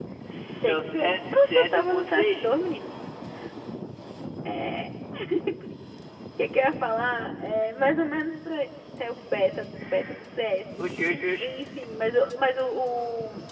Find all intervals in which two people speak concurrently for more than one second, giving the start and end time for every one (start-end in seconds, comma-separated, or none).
0.7-2.5